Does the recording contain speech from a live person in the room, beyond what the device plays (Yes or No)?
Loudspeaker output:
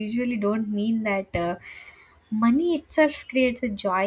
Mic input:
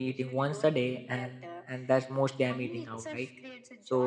Yes